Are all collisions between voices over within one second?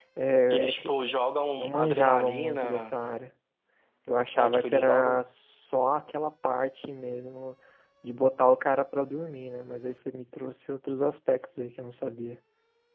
No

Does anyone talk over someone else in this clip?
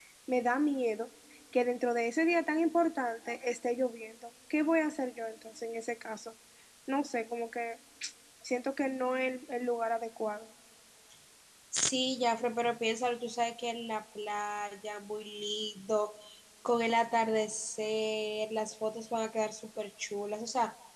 No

